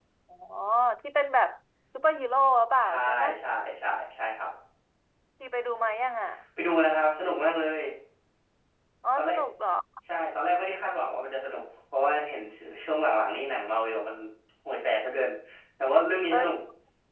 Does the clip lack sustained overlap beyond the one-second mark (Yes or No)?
Yes